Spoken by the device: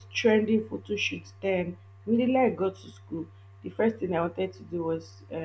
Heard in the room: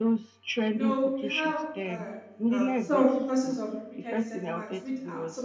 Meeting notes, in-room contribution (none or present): present